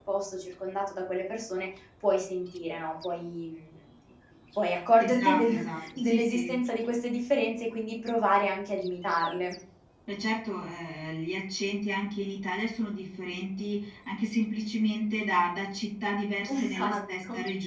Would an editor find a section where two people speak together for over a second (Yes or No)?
Yes